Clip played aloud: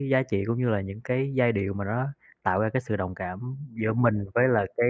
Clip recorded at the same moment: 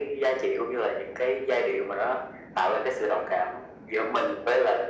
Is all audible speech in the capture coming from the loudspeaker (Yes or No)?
Yes